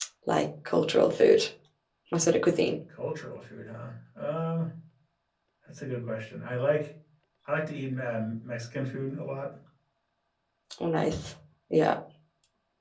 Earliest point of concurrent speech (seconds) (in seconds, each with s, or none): none